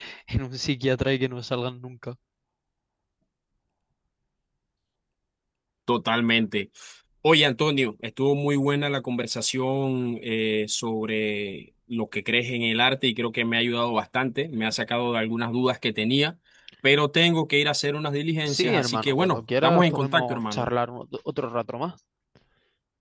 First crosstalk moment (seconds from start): 18.5 s

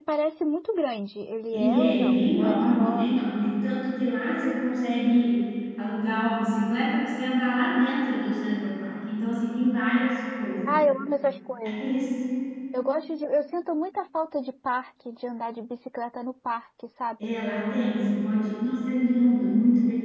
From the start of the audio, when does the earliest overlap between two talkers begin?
1.5 s

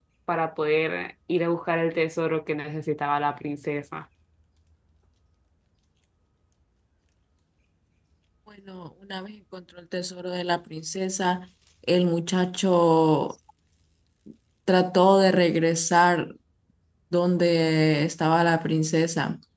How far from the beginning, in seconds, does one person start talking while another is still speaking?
none

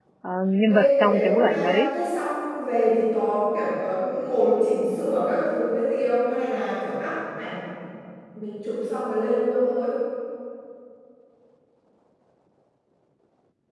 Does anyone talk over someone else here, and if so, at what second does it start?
0.7 s

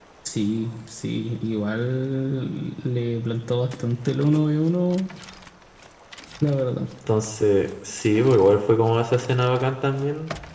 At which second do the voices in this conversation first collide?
none

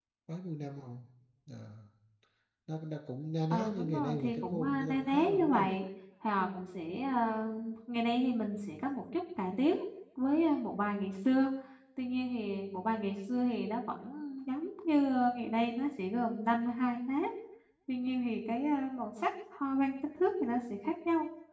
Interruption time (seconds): 3.5 s

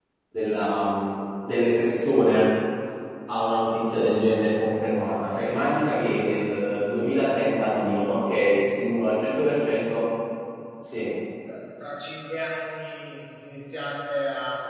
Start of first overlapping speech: none

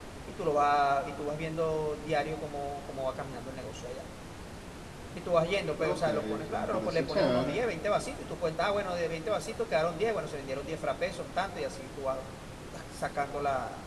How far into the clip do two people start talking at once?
5.8 s

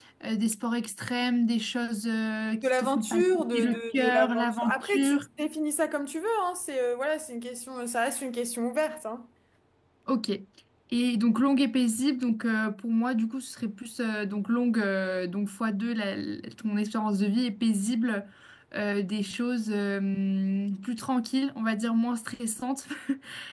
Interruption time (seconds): 2.6 s

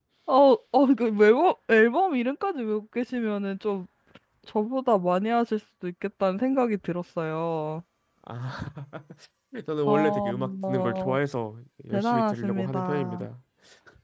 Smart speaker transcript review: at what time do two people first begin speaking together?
9.9 s

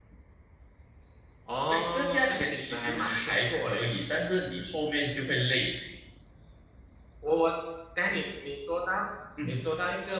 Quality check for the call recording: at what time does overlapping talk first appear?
1.7 s

